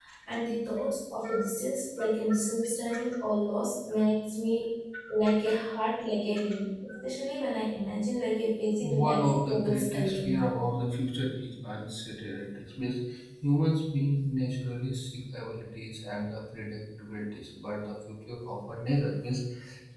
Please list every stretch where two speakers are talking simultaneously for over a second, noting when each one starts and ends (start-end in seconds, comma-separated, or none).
8.8-10.4